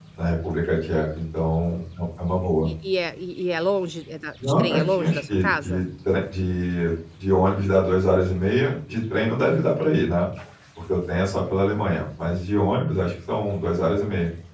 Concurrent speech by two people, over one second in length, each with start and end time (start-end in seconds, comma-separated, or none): 4.4-5.8